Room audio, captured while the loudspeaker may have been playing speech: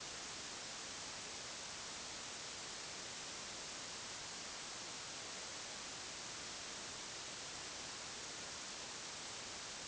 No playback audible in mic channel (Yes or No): Yes